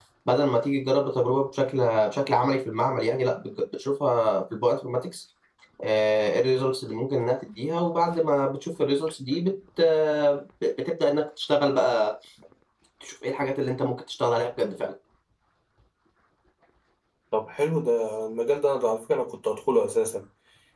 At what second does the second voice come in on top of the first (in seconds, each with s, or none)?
none